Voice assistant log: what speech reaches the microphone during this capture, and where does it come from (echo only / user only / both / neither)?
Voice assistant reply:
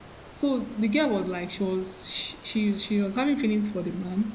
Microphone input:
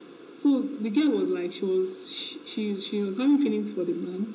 echo only